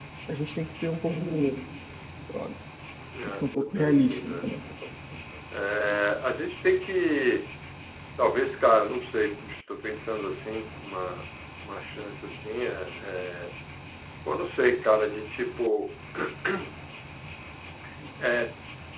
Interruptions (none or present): present